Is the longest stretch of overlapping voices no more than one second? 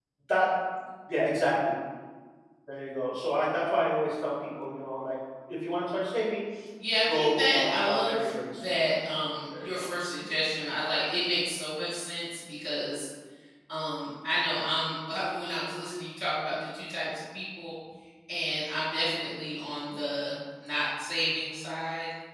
No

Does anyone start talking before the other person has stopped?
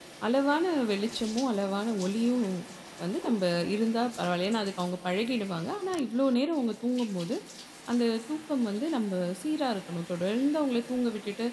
No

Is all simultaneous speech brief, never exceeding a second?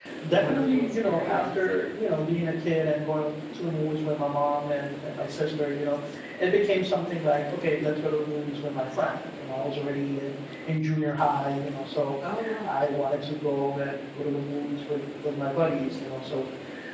No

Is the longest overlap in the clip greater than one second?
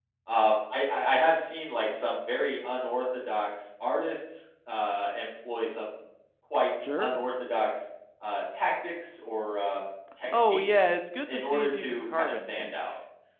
Yes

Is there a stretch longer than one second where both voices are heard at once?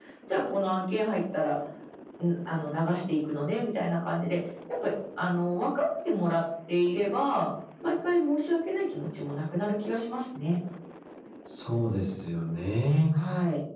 No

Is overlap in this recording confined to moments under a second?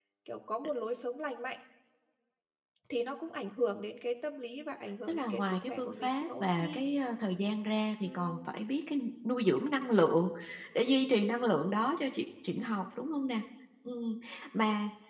No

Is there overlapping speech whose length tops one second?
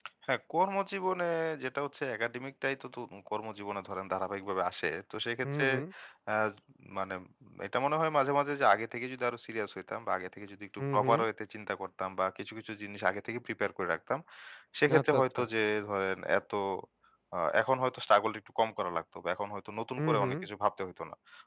No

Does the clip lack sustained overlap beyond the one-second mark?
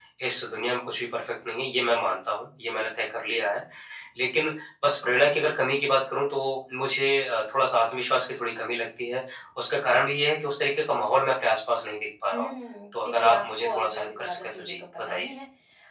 No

